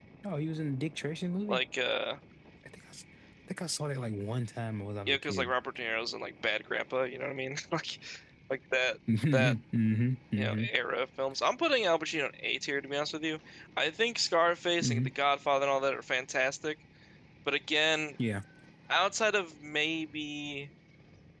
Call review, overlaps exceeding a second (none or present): none